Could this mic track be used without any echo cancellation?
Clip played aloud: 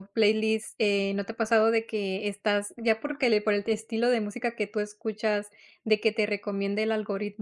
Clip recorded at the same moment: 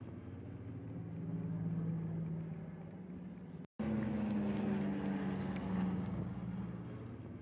Yes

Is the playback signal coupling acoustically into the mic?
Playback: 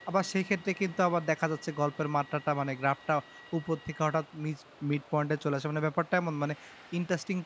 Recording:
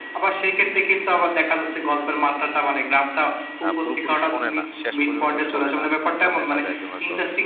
Yes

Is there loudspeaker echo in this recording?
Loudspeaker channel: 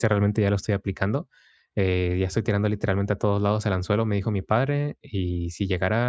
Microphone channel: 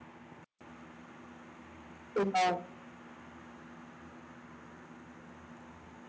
No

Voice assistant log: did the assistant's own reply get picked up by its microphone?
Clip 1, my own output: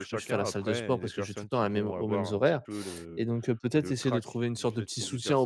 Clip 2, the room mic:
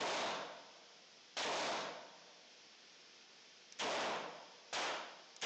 No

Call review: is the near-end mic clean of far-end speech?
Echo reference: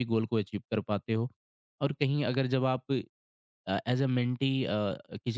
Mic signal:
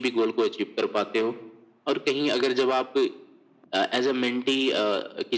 No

